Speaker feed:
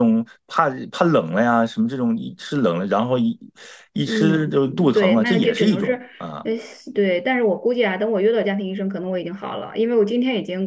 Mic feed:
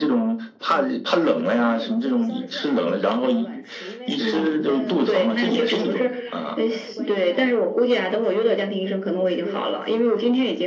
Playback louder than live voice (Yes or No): Yes